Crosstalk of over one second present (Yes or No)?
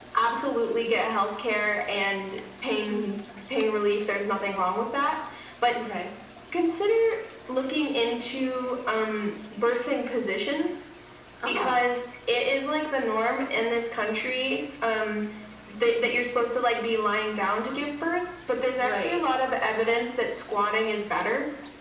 No